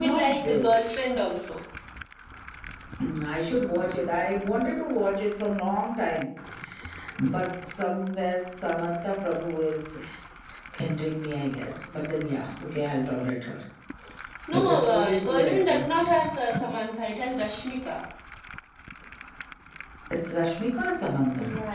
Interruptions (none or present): present